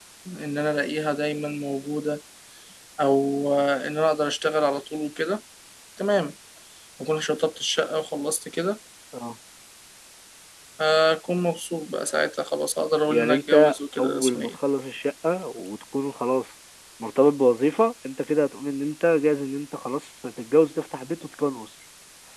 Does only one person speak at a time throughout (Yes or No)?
No